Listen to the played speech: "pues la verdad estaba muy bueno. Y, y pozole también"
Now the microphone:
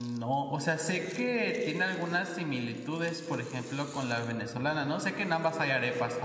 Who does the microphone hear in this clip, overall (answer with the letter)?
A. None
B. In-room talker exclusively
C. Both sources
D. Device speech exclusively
B